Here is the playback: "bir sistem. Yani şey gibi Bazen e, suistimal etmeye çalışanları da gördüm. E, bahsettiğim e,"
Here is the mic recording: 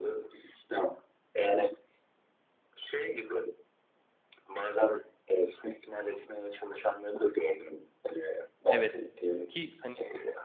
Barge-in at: 9 s

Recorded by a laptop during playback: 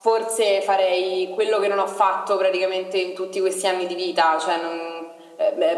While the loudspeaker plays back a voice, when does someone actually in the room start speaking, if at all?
none

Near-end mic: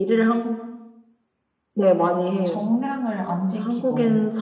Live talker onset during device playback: 2 s

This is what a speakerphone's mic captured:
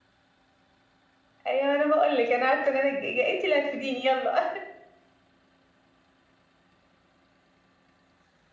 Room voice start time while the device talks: 1 s

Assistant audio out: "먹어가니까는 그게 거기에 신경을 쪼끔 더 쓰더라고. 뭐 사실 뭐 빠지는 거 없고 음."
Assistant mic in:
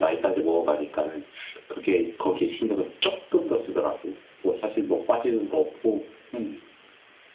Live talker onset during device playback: none

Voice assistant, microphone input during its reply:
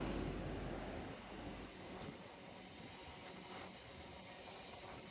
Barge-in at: none

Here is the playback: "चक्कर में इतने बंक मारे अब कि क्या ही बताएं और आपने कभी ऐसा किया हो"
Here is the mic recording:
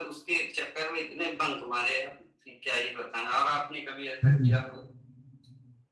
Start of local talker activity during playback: 4 s

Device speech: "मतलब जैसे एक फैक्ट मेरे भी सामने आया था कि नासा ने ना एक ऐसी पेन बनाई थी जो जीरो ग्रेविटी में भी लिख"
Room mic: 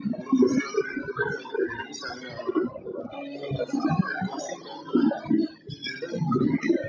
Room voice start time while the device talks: none

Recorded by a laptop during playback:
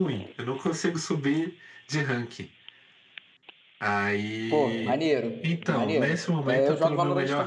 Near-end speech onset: 4 s

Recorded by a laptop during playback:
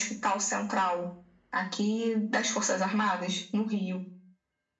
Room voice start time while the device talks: none

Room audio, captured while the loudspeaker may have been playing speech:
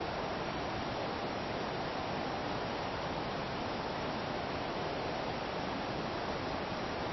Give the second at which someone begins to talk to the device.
none

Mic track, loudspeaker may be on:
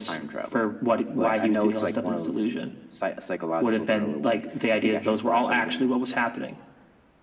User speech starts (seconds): none

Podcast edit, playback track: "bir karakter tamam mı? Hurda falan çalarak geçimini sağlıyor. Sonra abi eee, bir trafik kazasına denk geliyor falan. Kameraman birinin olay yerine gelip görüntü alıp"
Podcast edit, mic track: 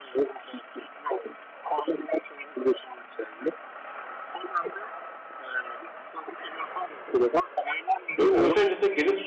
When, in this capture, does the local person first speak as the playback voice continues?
8 s

